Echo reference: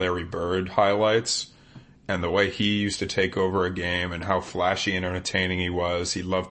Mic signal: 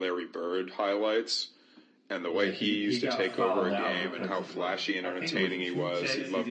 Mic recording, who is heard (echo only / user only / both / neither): both